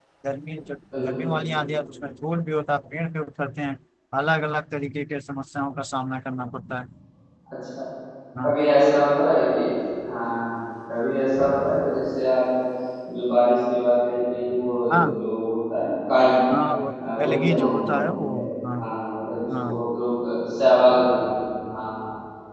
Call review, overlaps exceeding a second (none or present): present